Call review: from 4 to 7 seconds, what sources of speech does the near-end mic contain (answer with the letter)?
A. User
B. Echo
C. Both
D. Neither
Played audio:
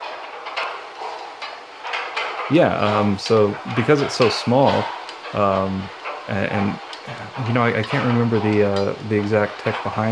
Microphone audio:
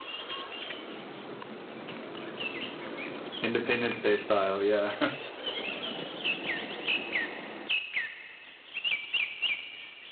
A